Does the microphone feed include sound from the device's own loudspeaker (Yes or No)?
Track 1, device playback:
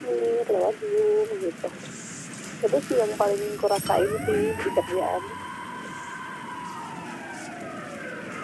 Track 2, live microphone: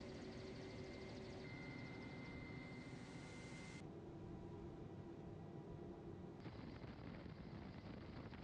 No